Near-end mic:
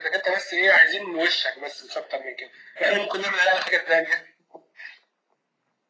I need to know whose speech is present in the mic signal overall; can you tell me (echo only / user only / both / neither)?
echo only